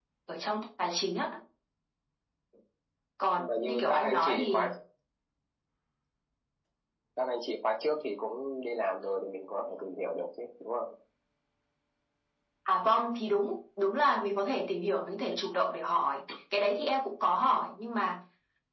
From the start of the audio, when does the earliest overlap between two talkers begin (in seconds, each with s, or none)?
3.4 s